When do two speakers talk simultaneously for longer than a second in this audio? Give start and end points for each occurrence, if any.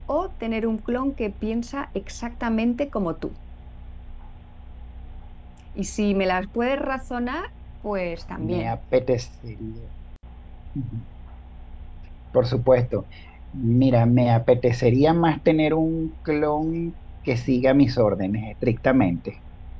none

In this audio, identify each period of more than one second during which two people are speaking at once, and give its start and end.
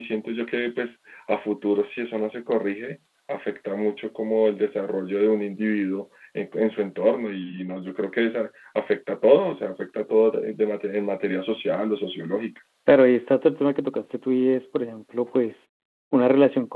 none

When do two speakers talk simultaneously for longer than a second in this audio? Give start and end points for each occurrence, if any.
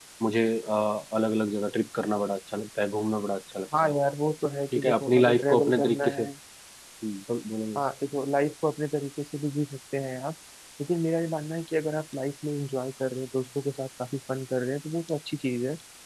4.7-6.2

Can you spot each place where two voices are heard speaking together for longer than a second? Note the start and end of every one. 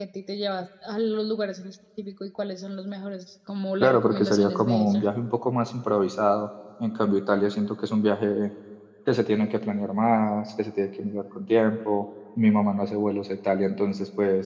3.8-5.0

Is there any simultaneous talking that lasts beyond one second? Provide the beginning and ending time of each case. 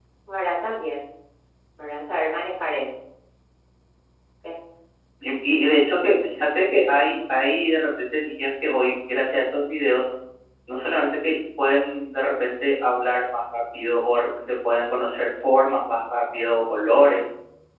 none

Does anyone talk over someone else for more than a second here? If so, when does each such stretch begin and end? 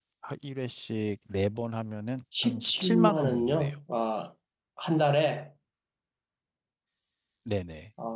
2.4-3.7

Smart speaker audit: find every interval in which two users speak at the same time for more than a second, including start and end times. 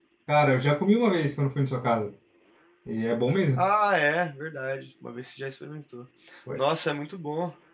none

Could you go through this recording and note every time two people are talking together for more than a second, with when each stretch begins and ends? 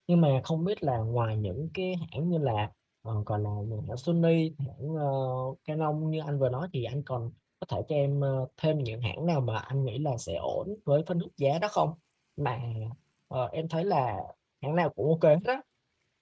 none

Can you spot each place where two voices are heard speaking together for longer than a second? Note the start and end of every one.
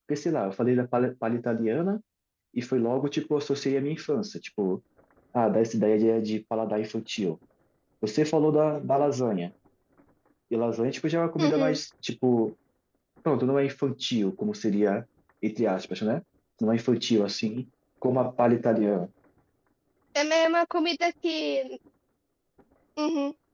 none

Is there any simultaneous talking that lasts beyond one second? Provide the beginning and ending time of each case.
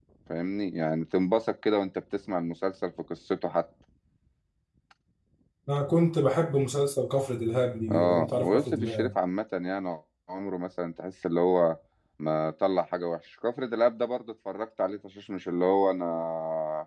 7.9-9.1

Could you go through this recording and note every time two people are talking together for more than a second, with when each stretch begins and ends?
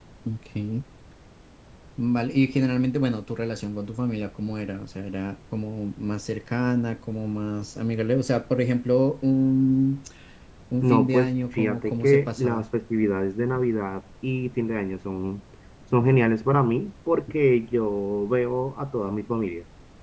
10.8-12.6

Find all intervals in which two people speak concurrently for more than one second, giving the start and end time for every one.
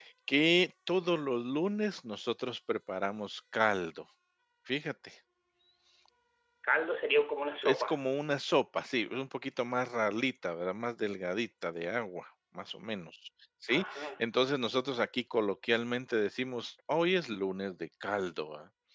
none

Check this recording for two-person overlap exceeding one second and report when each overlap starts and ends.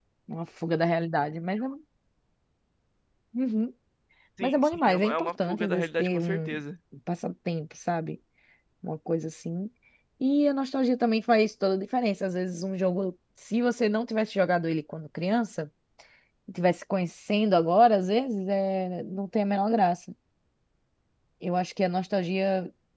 4.4-6.6

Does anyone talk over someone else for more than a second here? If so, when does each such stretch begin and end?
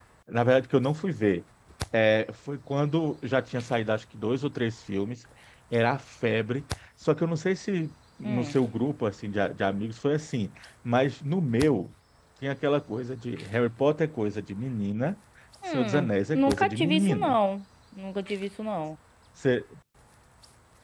15.7-17.4

